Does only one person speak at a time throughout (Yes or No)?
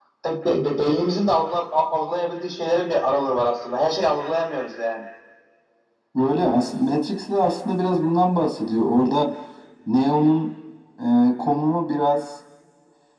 Yes